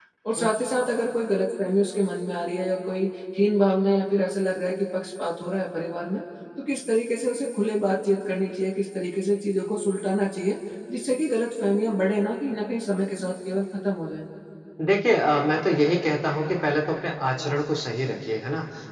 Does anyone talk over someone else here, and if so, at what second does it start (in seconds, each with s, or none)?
none